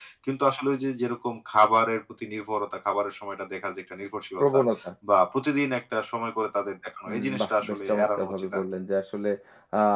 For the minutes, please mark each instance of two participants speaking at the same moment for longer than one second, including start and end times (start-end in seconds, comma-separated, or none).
7.1-8.6